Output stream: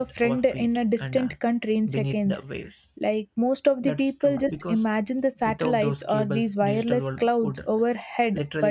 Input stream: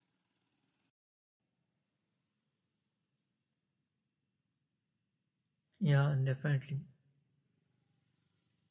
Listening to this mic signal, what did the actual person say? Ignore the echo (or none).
Yeah, definitely.